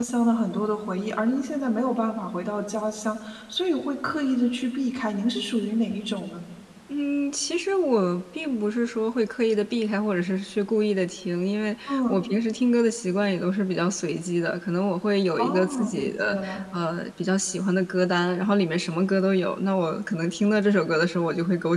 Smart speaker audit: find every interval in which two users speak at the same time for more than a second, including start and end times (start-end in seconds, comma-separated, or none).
15.4-16.6